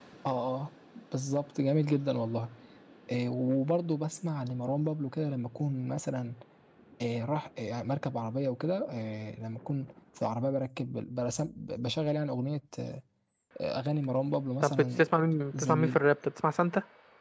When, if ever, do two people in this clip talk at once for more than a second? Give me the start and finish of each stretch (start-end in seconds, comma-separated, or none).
none